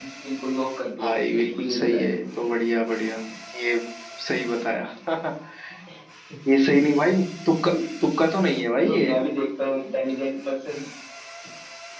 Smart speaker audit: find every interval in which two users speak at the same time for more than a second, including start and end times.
1.0-2.2

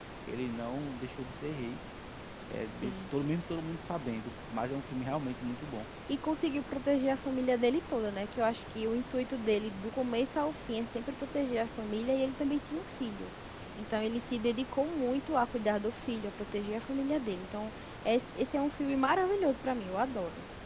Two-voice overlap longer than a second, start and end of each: none

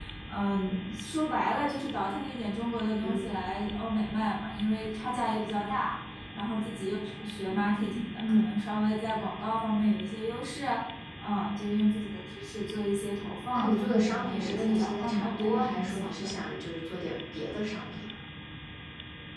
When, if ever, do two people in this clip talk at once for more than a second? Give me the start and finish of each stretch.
13.5-16.3

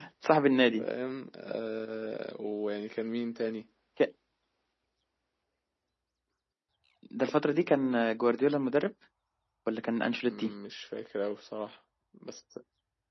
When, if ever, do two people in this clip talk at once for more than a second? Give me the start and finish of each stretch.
none

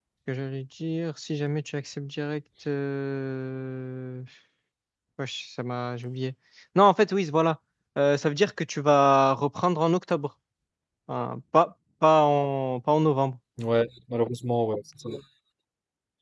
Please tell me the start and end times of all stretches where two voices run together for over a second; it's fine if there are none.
none

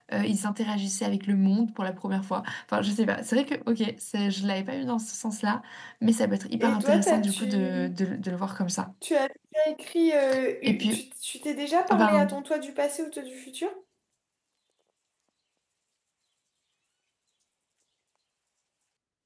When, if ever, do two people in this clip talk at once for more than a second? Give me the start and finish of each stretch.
6.6-7.9

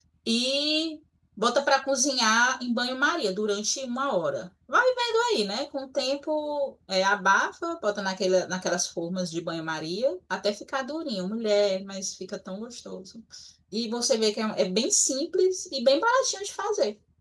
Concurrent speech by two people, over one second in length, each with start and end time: none

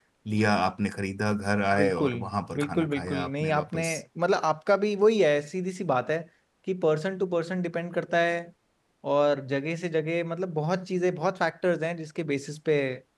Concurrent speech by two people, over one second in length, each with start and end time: 2.5-3.8

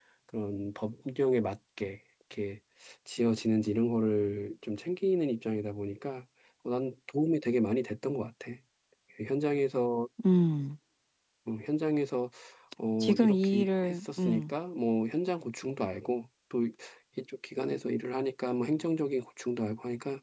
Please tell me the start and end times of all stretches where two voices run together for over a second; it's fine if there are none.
13.0-14.5

